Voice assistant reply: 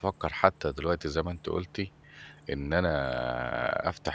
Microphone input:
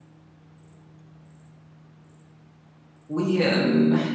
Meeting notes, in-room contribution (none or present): present